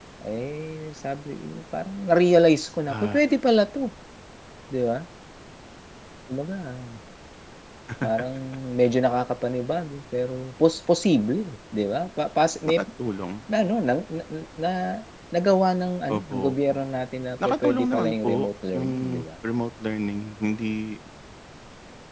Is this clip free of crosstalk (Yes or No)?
No